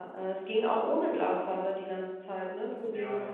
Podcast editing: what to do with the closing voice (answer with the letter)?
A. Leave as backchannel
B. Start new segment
B